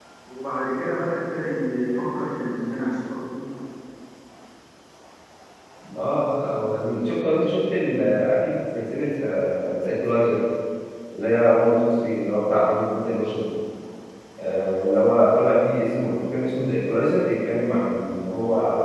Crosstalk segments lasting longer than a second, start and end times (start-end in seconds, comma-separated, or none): none